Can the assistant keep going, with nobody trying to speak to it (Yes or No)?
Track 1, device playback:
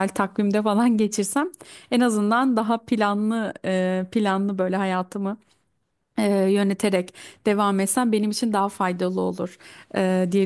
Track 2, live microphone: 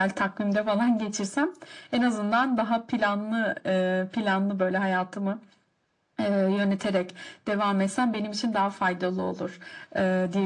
Yes